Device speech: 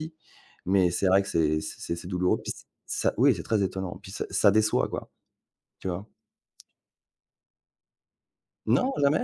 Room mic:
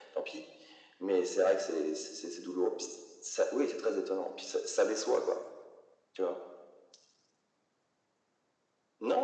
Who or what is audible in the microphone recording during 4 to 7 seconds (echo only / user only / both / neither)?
echo only